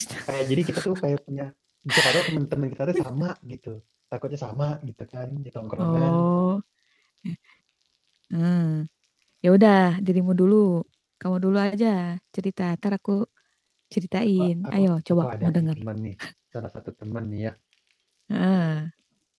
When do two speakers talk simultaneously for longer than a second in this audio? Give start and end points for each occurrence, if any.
14.4-15.8

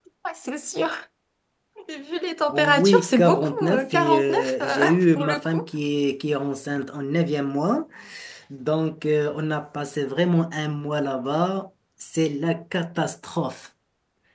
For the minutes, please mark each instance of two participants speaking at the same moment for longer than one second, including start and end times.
2.5-5.6

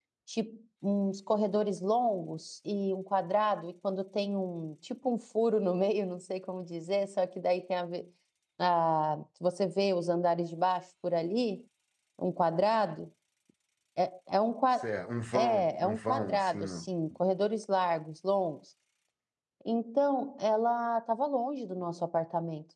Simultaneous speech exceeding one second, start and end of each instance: 15.3-16.8

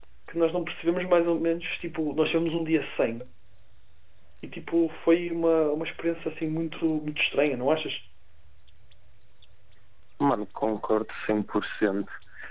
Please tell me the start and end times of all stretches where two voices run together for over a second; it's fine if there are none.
none

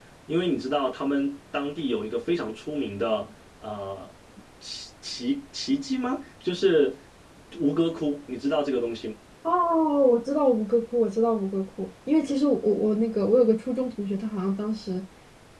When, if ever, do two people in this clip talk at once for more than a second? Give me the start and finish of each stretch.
none

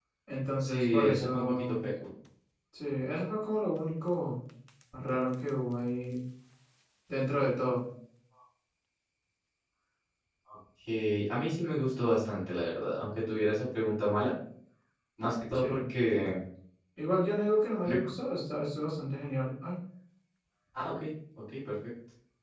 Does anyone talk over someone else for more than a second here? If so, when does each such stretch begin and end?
0.6-1.8

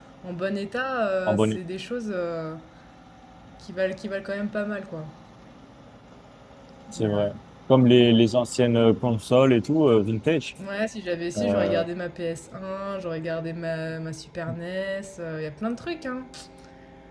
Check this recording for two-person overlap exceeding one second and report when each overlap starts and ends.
none

